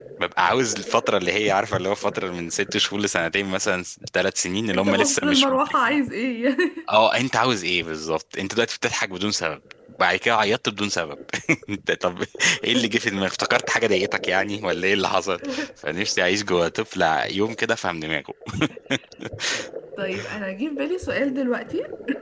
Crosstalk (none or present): present